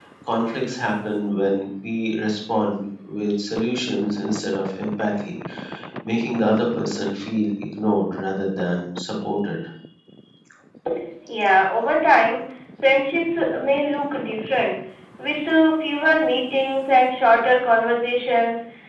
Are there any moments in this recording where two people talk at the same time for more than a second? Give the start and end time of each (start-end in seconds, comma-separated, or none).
none